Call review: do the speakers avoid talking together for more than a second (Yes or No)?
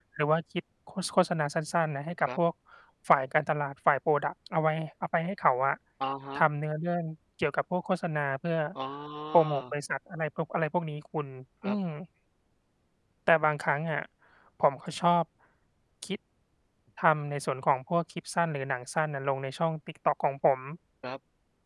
Yes